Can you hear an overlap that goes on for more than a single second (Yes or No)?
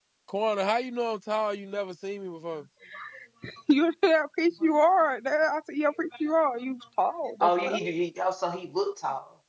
No